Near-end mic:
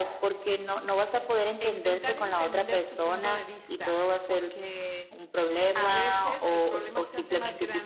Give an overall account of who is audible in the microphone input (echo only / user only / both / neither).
both